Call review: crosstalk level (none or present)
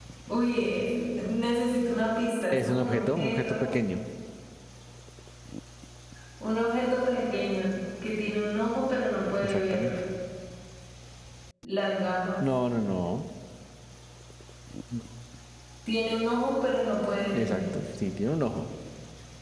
present